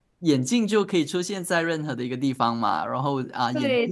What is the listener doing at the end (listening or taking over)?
listening